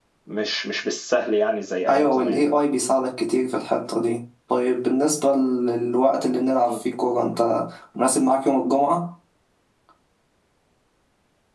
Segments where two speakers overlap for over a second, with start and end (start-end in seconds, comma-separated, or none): none